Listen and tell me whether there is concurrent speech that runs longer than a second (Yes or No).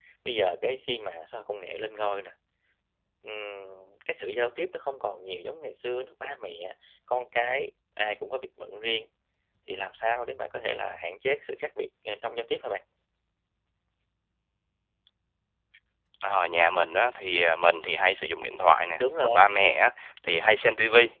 No